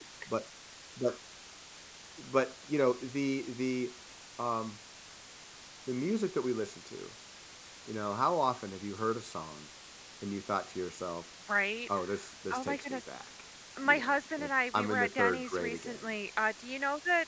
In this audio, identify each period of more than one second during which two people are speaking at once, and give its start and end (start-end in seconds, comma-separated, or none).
13.8-16.0